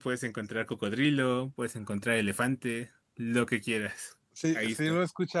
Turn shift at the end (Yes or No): Yes